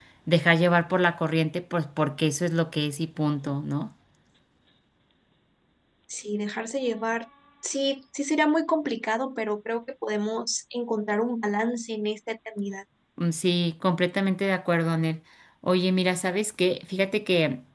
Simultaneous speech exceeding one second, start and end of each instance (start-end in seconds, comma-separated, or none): none